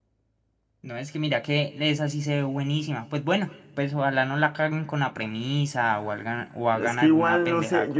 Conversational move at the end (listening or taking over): taking over